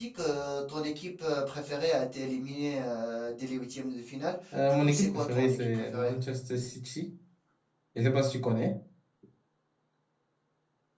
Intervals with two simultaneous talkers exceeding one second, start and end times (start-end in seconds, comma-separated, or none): 4.7-6.1